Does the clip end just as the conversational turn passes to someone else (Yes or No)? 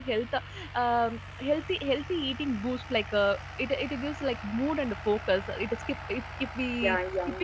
Yes